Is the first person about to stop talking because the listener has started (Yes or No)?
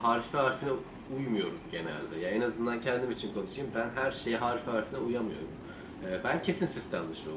No